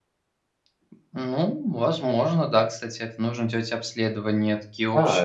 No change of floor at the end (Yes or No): No